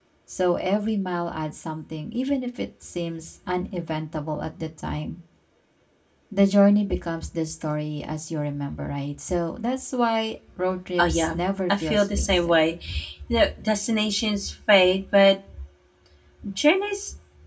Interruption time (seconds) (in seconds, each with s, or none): 11.0 s